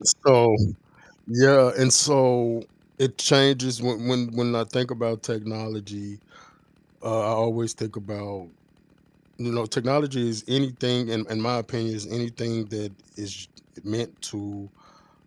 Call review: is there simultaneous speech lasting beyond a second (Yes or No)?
No